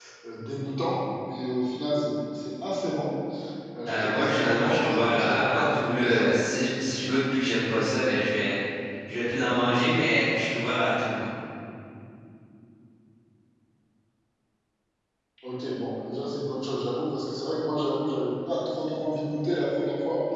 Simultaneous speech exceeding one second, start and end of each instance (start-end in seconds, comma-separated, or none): 3.9-6.3